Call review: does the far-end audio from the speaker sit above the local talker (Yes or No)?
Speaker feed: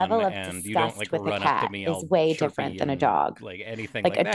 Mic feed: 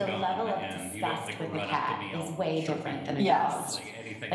No